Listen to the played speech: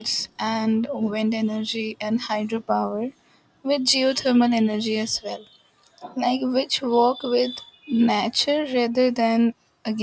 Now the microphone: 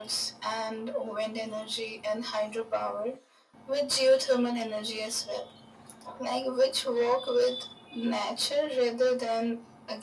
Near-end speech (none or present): none